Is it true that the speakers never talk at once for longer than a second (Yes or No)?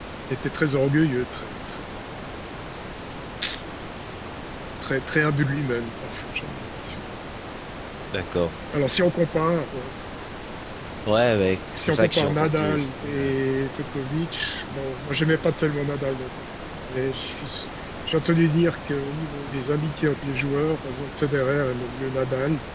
No